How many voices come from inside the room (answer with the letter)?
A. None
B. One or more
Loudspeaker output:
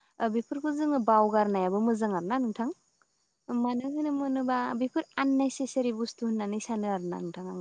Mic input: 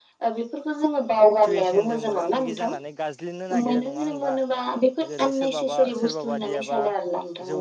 B